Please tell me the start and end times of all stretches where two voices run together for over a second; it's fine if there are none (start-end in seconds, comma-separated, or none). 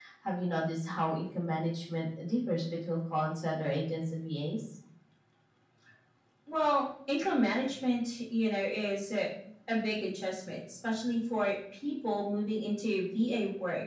none